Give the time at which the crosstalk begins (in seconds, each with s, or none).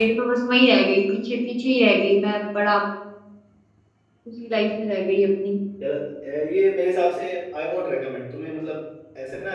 none